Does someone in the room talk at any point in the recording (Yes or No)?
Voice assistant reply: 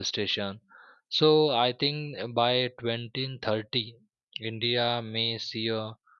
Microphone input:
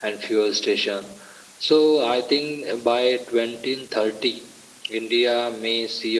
No